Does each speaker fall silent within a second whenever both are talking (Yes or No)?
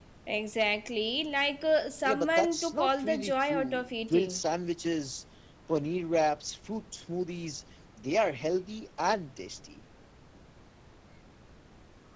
No